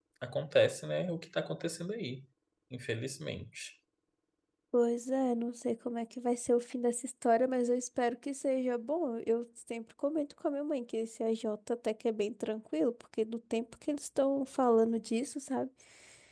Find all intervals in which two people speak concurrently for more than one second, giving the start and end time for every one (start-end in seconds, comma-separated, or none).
none